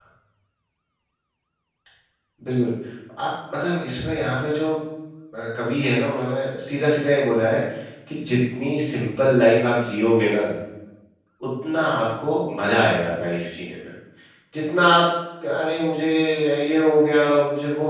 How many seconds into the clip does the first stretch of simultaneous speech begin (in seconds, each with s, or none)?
none